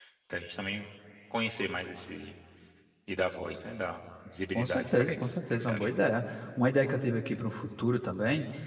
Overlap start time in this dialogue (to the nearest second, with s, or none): 5 s